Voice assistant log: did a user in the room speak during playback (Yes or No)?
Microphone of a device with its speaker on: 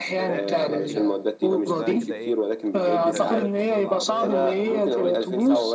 Yes